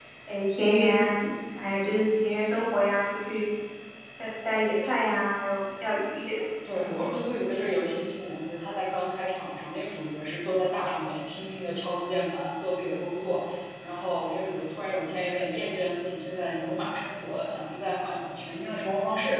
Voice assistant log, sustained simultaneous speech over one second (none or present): none